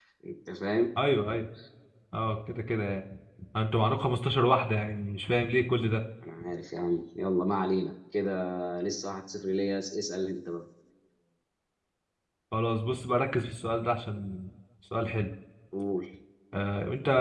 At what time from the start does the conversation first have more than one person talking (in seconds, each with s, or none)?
none